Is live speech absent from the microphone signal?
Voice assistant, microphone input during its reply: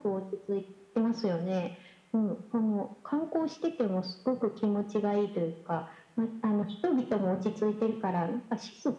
Yes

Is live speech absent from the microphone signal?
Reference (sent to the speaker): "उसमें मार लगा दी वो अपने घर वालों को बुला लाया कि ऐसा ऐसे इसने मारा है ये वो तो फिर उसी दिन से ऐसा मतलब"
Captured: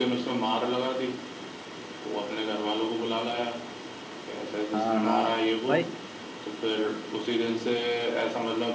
No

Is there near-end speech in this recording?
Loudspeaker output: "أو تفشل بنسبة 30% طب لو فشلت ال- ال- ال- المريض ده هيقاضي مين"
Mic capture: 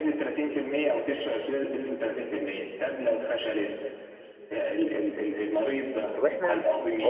Yes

